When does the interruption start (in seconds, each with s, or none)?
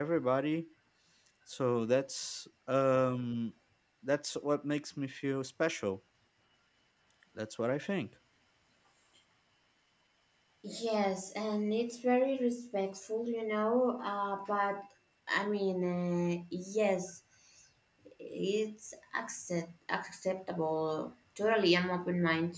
none